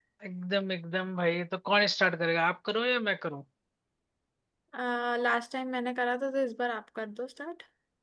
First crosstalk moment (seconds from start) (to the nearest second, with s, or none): none